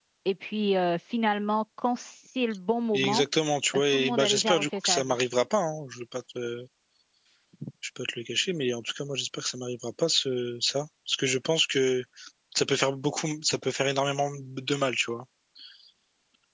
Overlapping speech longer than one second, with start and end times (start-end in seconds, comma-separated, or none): 3.9-5.2